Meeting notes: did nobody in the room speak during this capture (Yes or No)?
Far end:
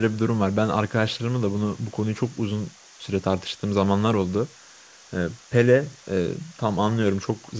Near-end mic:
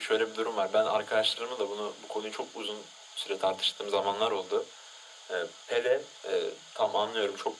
Yes